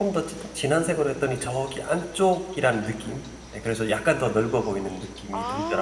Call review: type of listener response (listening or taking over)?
taking over